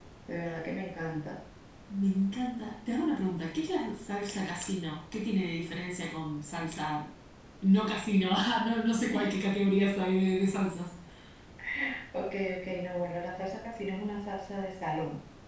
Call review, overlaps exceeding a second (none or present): none